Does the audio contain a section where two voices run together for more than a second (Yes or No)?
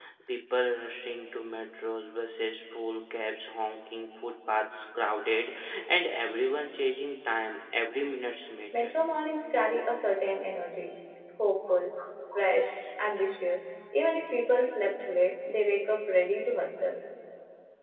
No